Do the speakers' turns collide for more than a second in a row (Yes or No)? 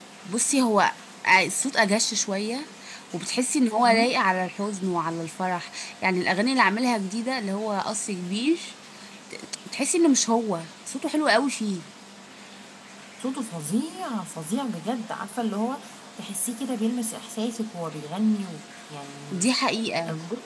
No